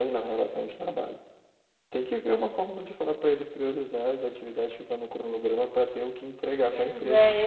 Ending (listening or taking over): taking over